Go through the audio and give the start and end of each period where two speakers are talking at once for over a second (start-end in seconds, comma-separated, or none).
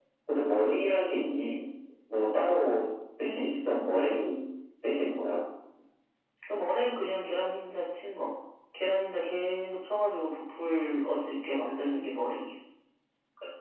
none